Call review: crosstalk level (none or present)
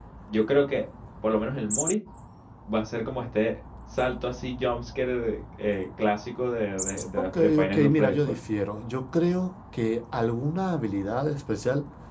present